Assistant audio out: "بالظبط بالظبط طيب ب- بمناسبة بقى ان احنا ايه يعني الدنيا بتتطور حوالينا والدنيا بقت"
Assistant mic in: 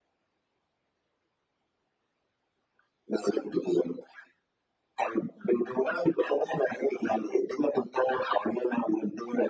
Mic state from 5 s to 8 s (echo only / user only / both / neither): echo only